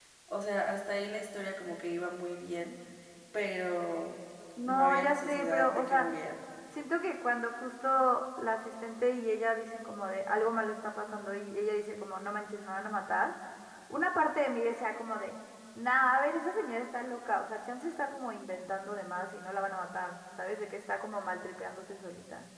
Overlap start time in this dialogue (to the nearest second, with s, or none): 5 s